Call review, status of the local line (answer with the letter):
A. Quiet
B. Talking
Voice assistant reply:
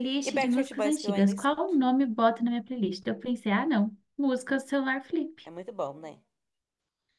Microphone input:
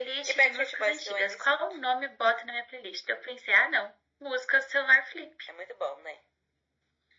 A